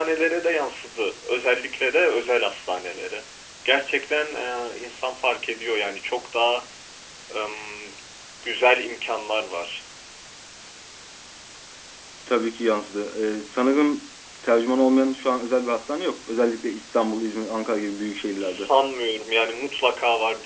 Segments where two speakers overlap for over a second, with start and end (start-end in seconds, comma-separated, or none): none